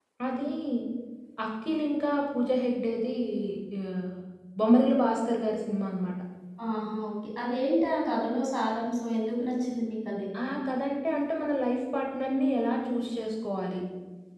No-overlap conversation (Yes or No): Yes